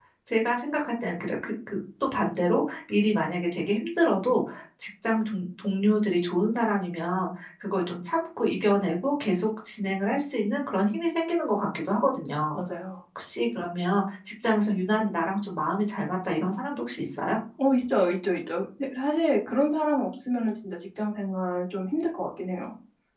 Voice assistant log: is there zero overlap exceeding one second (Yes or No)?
Yes